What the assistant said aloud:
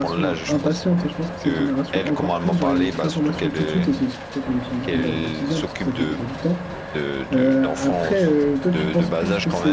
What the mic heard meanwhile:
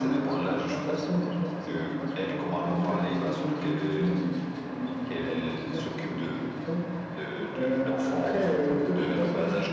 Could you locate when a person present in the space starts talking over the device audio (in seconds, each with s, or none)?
none